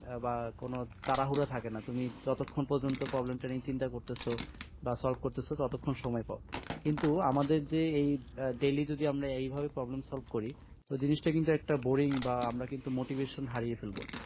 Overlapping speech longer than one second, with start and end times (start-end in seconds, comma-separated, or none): none